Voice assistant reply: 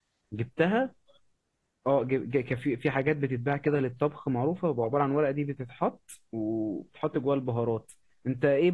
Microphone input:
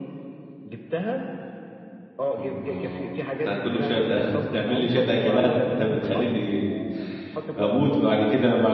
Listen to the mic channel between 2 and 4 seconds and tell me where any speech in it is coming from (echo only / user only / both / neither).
both